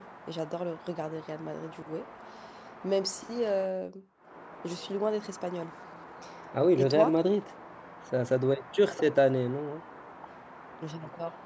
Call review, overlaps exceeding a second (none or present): none